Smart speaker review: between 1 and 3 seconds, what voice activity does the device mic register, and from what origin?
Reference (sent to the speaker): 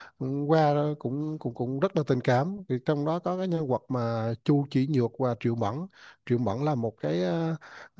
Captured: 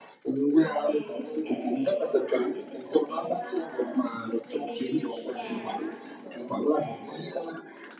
both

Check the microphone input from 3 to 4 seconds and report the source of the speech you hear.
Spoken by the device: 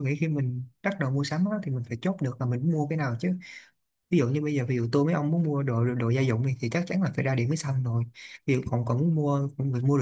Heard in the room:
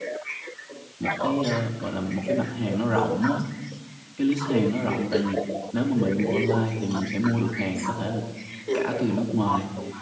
both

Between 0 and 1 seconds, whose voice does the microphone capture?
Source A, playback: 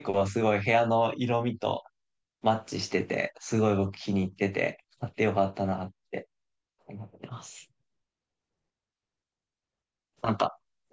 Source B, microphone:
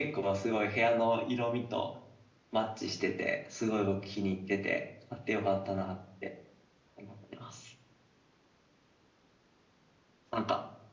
echo only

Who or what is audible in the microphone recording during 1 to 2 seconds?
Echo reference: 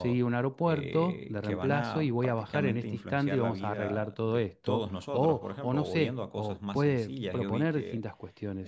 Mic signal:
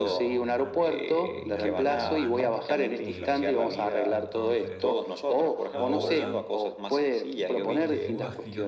both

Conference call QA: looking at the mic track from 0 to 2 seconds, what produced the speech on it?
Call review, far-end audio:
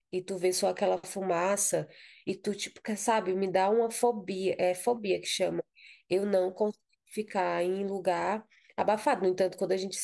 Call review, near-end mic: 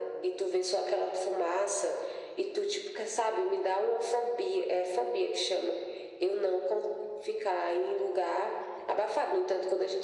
echo only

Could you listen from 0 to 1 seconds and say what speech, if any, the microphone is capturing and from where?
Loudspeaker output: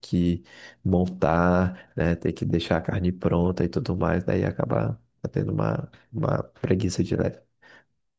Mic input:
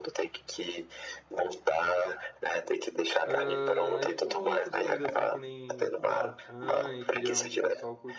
echo only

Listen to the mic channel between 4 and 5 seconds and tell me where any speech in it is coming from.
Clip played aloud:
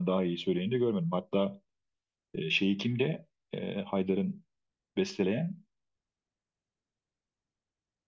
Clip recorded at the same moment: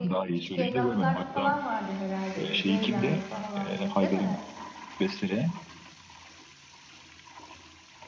both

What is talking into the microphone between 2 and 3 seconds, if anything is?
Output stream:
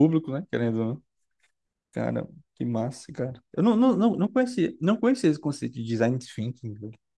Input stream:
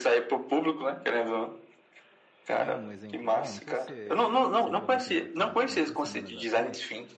both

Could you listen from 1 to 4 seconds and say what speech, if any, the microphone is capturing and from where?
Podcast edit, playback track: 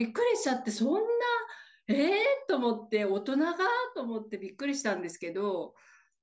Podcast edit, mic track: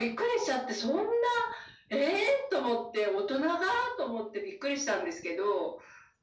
echo only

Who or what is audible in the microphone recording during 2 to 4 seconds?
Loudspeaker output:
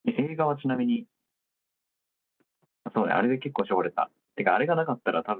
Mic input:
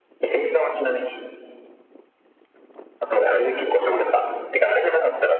echo only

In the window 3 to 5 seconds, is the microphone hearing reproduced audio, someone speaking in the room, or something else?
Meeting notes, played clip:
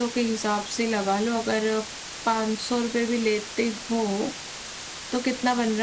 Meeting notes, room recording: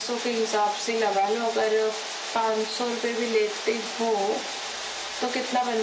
echo only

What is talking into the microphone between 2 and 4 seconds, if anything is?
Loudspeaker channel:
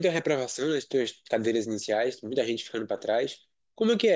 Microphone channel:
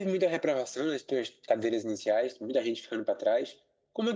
echo only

